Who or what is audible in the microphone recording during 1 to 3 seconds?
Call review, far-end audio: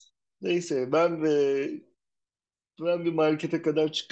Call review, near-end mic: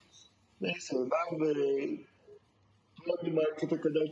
echo only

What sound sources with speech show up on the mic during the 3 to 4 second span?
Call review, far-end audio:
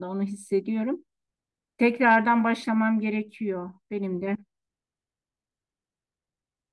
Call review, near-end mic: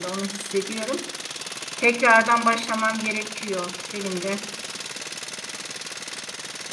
echo only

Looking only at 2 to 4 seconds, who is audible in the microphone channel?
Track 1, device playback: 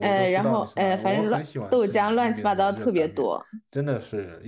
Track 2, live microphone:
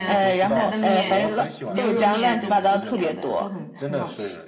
both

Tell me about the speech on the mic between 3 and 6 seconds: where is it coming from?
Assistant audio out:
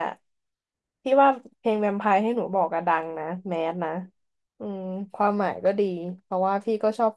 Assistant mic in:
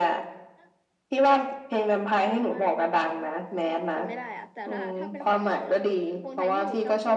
both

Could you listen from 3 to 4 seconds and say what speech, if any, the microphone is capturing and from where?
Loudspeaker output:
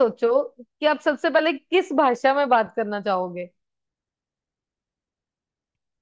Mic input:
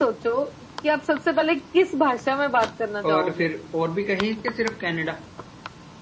both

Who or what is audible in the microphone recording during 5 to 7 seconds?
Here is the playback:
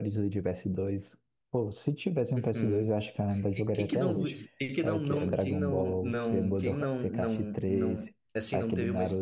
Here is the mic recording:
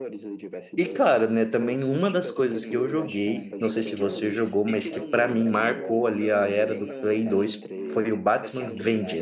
both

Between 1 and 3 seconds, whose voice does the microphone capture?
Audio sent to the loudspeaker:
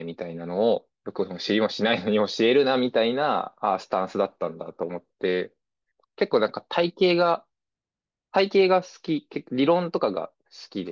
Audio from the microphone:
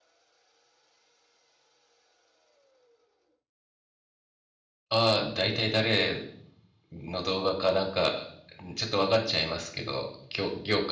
neither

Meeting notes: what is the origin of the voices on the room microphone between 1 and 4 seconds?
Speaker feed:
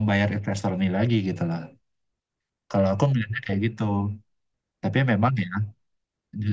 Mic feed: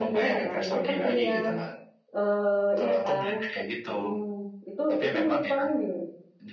both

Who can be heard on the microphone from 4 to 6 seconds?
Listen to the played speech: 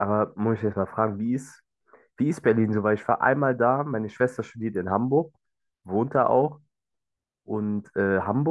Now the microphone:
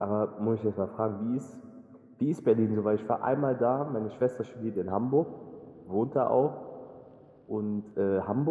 echo only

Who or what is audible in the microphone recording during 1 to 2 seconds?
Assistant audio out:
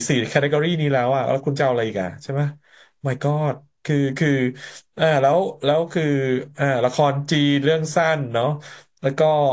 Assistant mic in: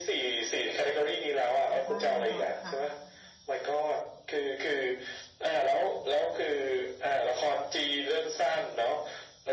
both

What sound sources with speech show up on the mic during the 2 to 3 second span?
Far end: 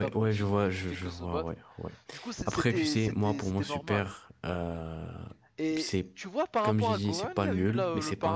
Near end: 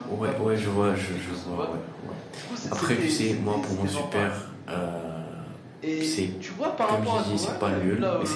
echo only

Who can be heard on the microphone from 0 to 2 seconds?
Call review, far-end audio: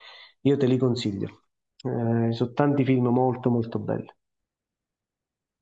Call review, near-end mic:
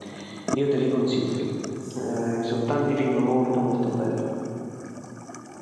echo only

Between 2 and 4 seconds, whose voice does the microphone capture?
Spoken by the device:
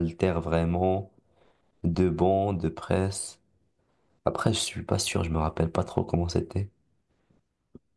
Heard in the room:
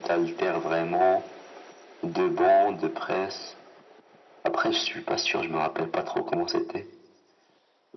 echo only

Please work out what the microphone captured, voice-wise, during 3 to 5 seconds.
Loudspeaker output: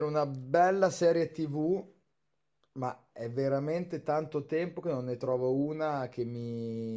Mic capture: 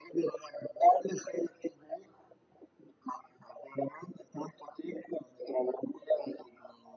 echo only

